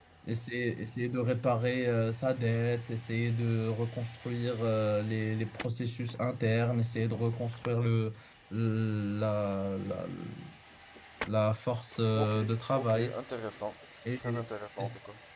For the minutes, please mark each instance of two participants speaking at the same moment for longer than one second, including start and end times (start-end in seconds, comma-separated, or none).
none